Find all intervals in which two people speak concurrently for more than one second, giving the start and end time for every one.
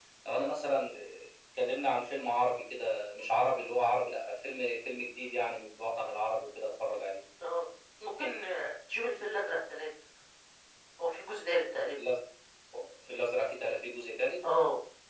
none

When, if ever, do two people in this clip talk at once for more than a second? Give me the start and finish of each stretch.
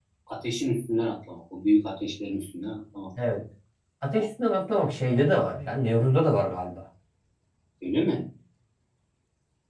none

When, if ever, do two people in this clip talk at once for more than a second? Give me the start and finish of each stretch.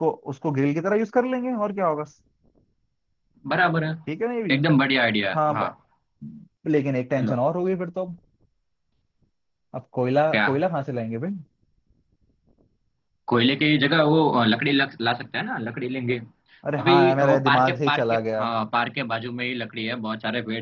16.8-18.4

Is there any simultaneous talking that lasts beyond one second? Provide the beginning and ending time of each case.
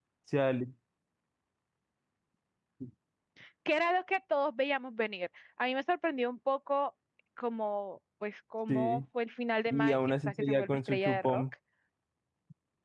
9.7-11.4

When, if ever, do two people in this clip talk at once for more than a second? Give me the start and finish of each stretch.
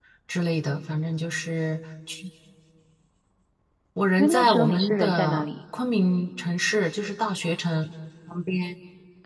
4.2-5.4

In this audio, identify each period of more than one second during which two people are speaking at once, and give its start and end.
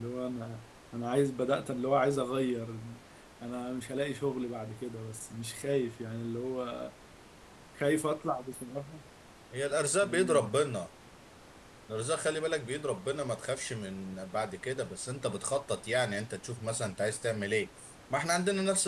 none

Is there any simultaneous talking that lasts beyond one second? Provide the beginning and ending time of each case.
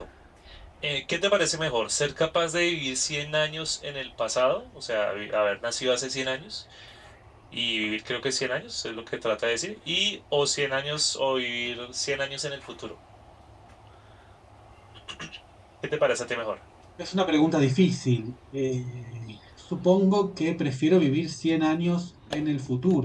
none

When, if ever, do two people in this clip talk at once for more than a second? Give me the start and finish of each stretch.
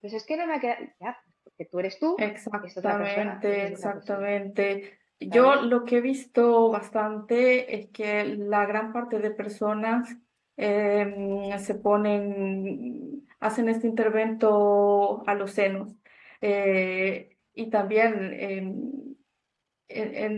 2.6-4.2

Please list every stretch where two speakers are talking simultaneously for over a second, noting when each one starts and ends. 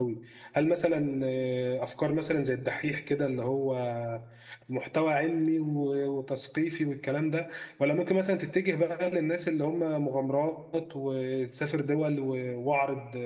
none

